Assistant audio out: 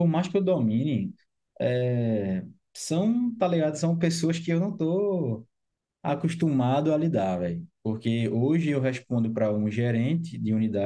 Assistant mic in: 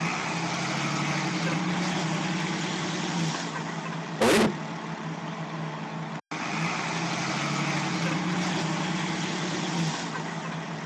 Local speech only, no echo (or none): Oi?